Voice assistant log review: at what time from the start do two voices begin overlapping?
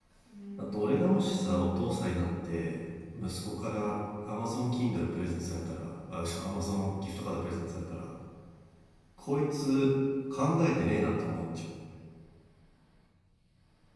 0.6 s

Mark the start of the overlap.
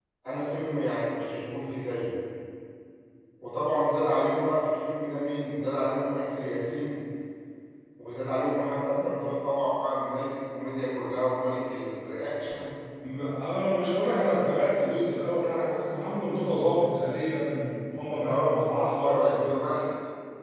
18.2 s

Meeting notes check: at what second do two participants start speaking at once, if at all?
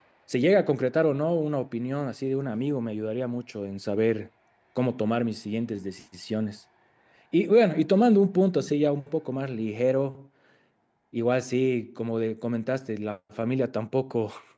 none

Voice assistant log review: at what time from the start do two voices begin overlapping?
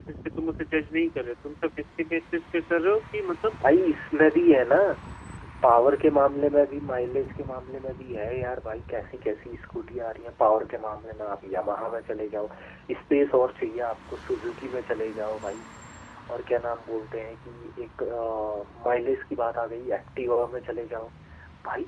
none

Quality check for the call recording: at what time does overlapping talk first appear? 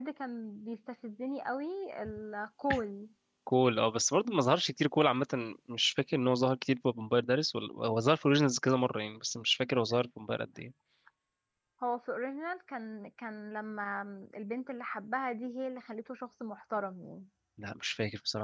none

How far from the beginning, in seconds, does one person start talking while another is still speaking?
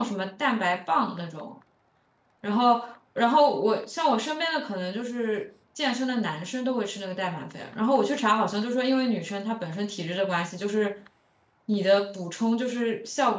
none

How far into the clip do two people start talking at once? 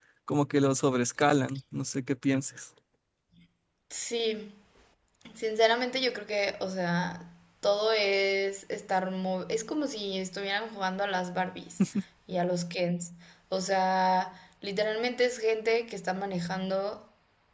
none

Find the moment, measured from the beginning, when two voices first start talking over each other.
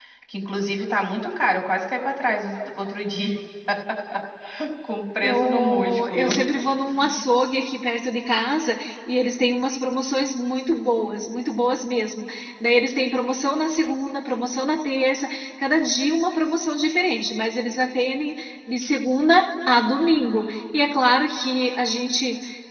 5.2 s

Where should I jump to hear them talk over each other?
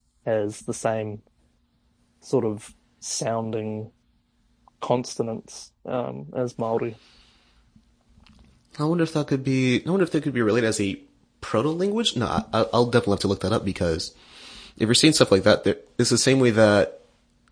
none

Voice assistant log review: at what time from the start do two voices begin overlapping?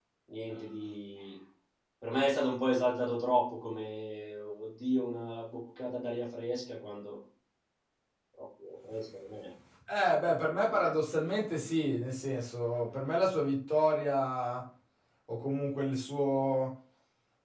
none

